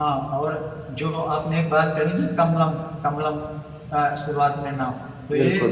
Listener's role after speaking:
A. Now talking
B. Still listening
B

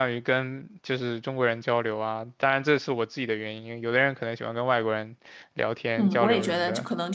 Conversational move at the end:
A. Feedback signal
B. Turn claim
B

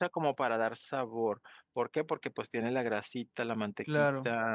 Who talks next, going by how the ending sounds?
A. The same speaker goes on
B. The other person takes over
A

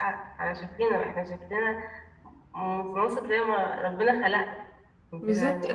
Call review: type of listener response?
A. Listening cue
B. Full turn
B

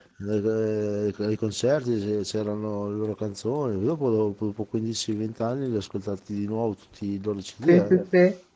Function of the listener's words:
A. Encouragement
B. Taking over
B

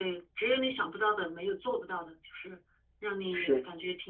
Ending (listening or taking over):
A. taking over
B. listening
B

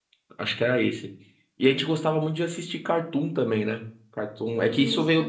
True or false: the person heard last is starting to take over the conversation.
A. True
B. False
B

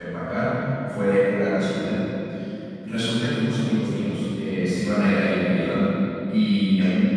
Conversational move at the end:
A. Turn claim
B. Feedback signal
B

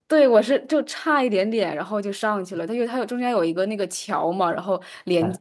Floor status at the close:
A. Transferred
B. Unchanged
B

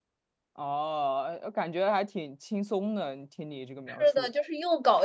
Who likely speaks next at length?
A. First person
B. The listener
B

